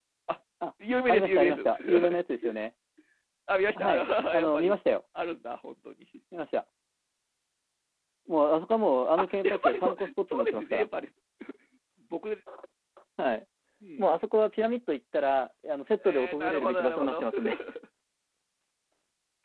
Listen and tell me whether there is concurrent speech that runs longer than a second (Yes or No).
Yes